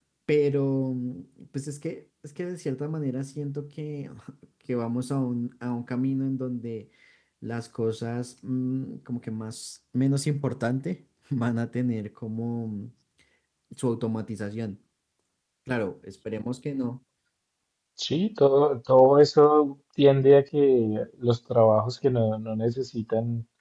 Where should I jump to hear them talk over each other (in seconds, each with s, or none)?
none